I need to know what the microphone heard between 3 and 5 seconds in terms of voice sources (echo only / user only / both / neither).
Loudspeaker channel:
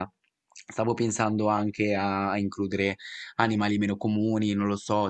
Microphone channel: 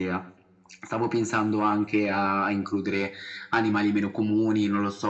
echo only